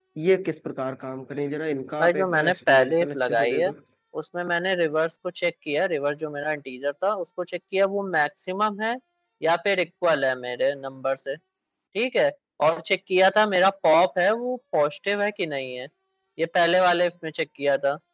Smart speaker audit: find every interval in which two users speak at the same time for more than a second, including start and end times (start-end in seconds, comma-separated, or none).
2.0-3.6